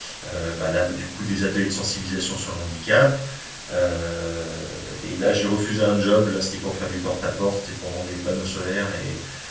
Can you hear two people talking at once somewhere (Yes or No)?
No